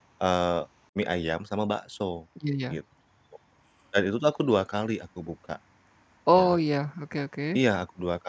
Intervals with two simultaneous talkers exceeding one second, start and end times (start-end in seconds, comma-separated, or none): none